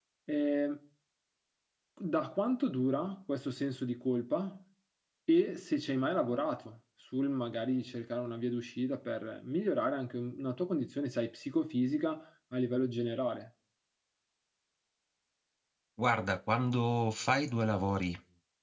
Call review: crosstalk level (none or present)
none